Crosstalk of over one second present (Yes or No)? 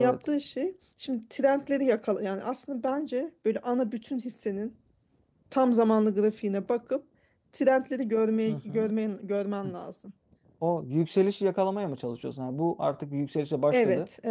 No